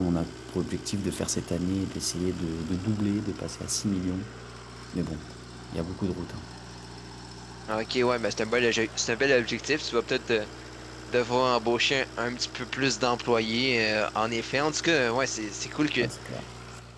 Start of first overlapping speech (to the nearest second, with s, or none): none